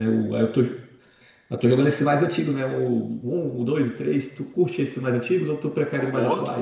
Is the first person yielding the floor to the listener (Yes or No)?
Yes